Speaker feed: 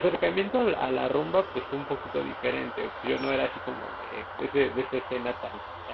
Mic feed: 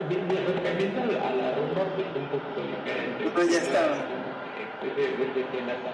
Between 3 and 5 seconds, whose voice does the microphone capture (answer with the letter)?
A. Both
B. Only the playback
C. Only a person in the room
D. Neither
A